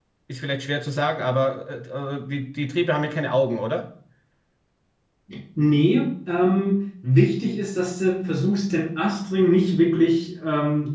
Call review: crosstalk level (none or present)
none